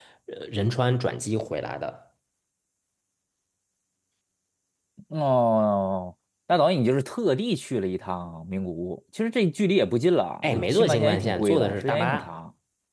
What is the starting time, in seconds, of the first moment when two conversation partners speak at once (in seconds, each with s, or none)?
10.4 s